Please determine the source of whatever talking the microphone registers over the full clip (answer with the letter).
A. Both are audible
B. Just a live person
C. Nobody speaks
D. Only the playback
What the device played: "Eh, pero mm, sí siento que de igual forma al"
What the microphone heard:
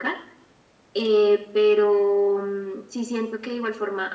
D